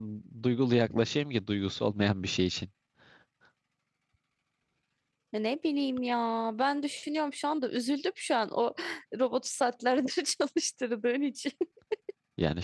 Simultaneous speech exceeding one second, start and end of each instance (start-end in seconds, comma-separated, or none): none